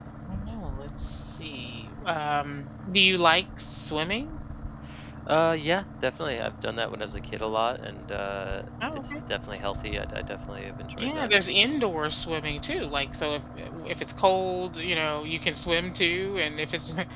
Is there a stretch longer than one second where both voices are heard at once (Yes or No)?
No